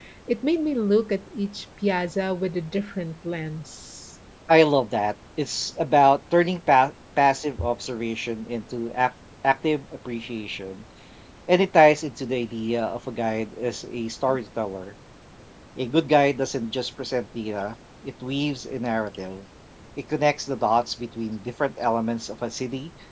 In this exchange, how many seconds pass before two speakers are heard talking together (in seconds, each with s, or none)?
none